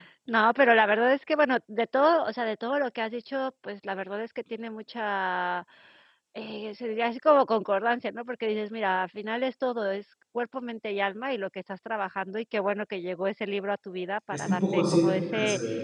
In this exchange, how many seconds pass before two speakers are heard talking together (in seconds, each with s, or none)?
14.3 s